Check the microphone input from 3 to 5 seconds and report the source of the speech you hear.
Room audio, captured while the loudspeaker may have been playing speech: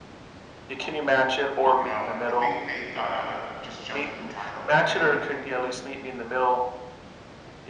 both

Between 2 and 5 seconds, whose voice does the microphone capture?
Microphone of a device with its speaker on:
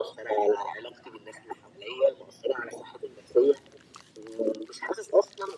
echo only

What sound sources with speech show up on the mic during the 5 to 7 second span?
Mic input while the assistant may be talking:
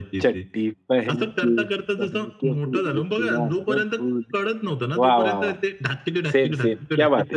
both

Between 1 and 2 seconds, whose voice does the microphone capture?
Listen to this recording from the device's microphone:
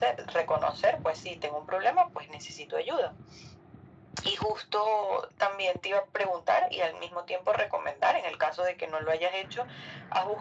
echo only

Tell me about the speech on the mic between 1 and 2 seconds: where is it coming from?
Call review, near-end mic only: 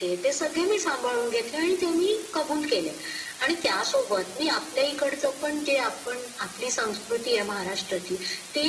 echo only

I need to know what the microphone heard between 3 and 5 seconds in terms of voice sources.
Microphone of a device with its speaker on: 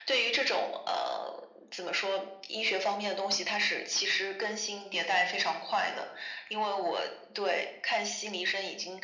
echo only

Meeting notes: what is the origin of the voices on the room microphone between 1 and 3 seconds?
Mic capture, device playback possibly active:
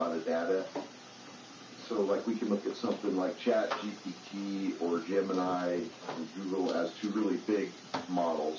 echo only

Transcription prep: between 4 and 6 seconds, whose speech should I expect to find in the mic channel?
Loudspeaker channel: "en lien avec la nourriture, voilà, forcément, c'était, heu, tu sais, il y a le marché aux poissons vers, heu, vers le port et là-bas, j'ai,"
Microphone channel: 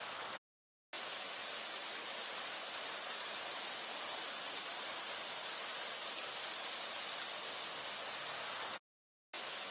neither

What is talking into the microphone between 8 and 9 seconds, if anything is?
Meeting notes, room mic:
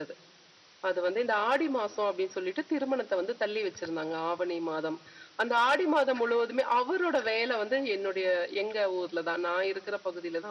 echo only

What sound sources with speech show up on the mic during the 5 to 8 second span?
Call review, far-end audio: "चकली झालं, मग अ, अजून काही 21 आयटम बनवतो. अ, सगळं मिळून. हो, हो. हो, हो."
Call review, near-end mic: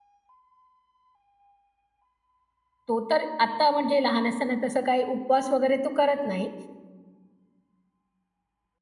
user only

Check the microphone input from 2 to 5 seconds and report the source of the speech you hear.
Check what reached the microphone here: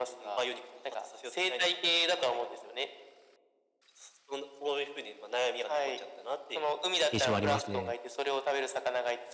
echo only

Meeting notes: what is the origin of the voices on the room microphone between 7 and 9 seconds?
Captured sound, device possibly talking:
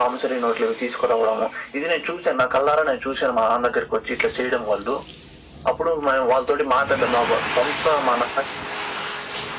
echo only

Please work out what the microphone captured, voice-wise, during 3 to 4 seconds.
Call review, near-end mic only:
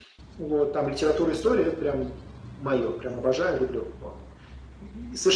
echo only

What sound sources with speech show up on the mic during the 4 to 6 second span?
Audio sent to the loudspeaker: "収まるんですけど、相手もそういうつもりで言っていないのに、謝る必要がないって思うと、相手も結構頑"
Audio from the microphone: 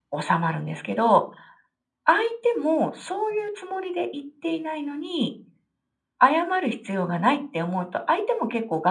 echo only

